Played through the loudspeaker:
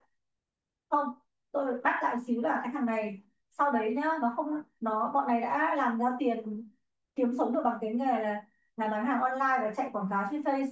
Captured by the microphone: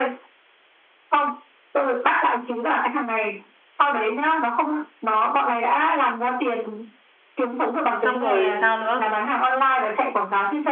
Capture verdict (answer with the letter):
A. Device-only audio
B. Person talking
B